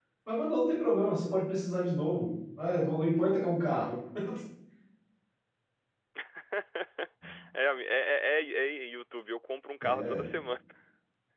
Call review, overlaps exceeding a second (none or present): none